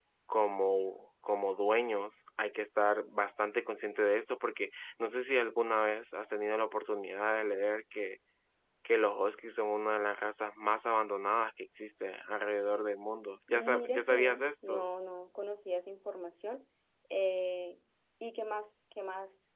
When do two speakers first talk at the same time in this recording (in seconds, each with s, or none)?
13.5 s